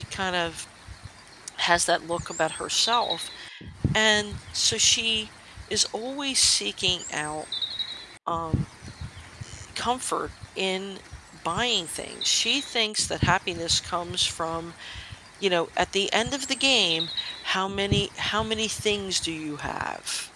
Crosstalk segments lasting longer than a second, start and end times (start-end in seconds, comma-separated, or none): none